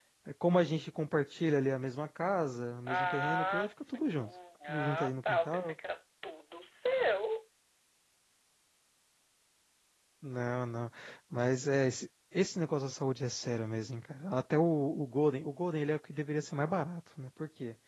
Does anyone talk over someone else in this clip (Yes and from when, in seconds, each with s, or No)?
Yes, from 2.9 s